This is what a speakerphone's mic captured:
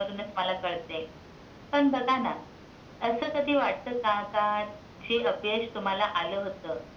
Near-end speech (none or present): none